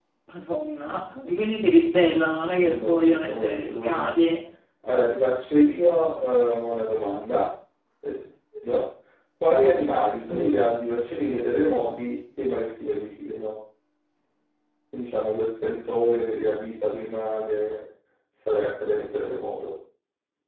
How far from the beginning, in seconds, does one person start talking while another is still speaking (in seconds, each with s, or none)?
2.6 s